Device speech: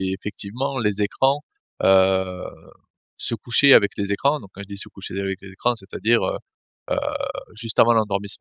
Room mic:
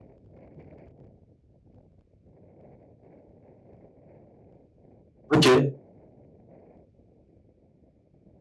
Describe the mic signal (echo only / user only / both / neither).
user only